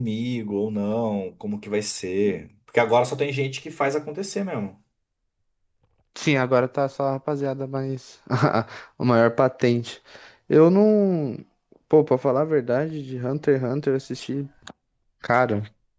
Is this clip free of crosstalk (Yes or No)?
Yes